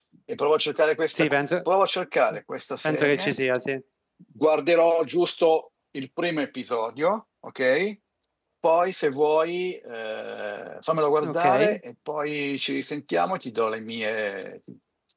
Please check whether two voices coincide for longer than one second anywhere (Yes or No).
No